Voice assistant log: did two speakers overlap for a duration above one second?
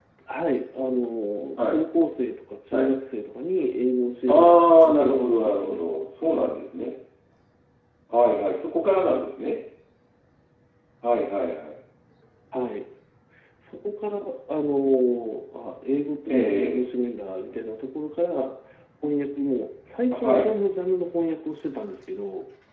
Yes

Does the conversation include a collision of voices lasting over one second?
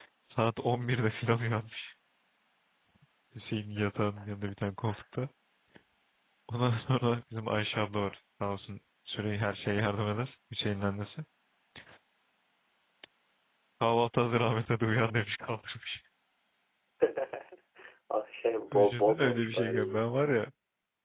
Yes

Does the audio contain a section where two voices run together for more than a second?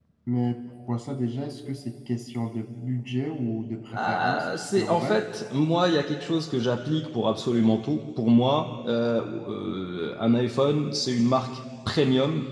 Yes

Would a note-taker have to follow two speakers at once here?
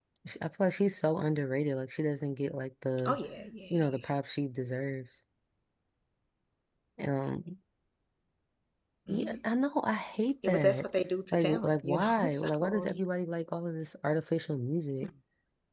Yes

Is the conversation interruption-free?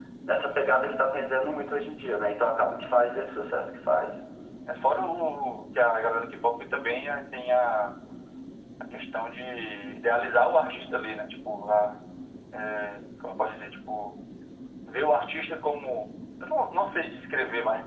Yes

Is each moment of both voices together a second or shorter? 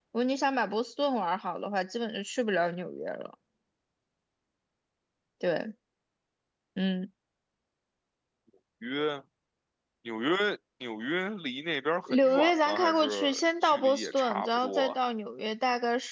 No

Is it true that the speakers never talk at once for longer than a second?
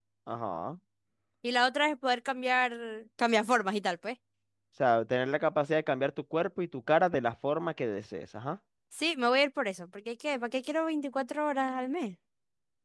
Yes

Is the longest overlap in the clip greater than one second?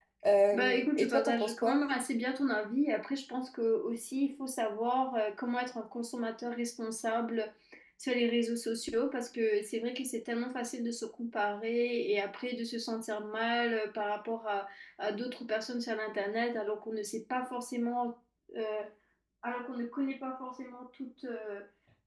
Yes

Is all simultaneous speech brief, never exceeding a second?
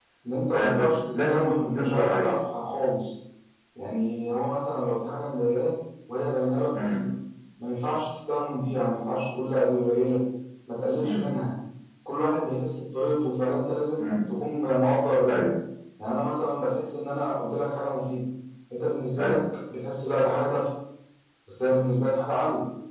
No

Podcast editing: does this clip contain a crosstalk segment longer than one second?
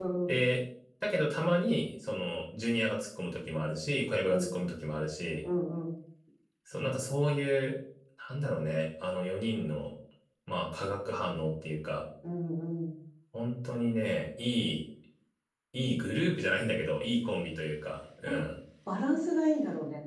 No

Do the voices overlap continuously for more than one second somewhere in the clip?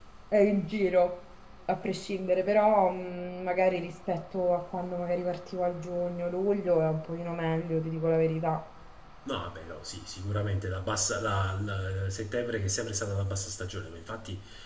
No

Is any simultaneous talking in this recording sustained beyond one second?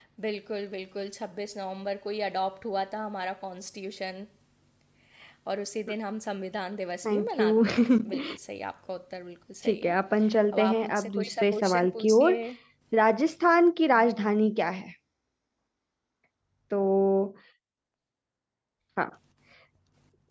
Yes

